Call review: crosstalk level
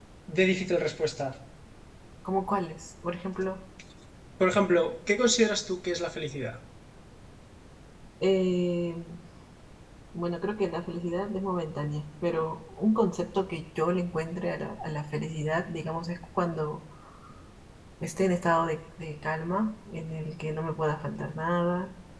none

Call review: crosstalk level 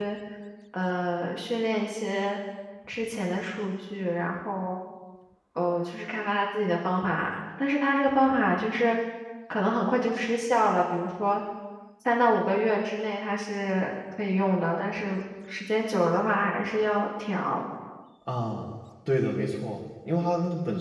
none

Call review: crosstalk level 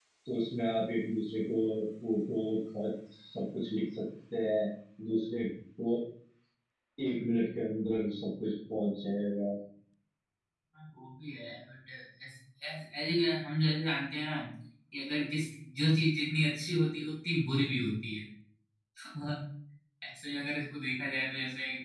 none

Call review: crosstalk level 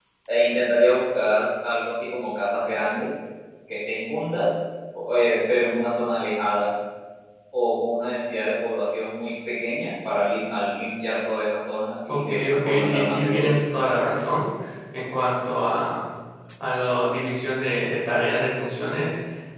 present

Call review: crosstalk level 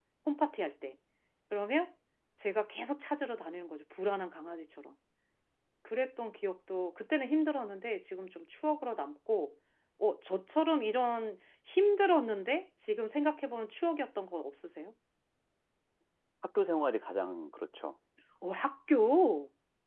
none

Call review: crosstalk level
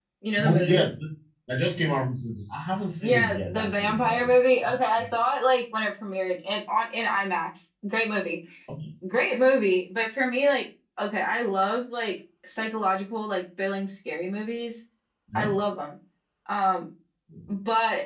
present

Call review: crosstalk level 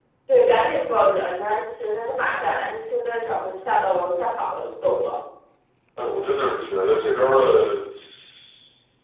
none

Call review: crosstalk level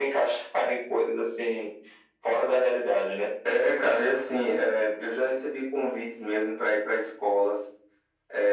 none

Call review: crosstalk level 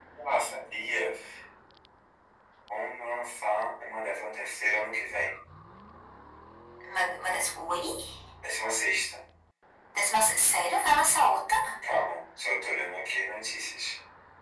none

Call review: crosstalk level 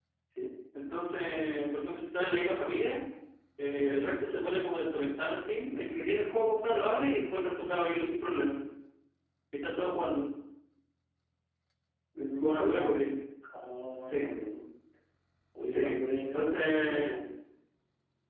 present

